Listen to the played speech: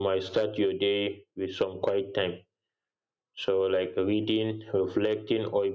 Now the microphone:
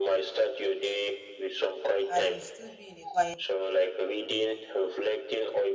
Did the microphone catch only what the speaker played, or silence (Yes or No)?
No